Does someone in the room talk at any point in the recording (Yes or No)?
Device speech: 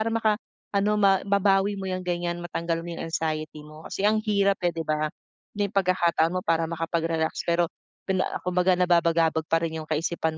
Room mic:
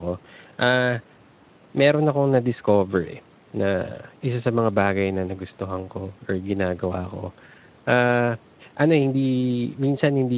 Yes